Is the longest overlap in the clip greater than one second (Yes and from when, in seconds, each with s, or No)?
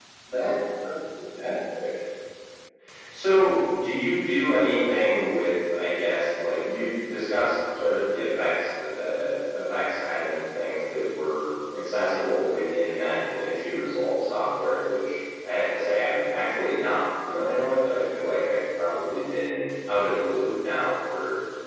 No